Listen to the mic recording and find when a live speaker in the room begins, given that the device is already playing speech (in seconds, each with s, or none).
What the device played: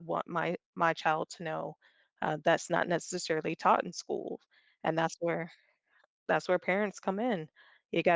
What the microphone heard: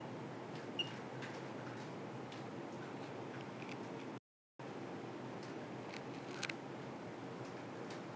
none